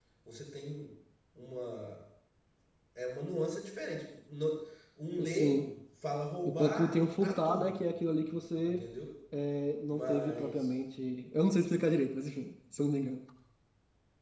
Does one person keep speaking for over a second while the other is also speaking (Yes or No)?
Yes